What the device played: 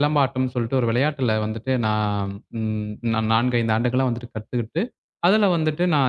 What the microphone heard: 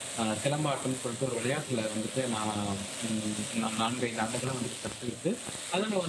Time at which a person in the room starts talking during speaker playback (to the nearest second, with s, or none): none